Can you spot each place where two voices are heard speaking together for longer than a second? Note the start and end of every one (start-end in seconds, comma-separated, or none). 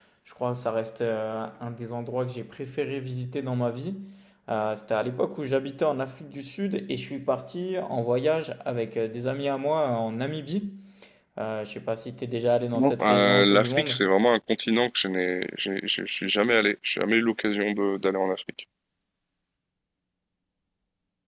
12.7-14.0